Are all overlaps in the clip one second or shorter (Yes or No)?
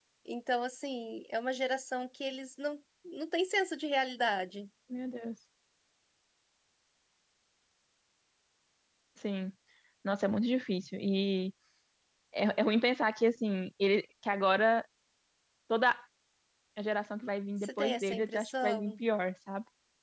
No